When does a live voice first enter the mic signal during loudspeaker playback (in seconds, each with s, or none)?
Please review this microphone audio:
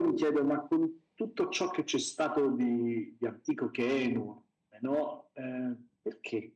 none